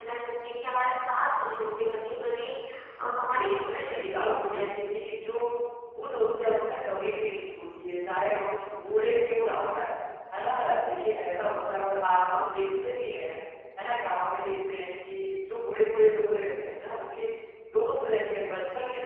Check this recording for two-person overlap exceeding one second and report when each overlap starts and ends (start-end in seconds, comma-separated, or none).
3.3-4.6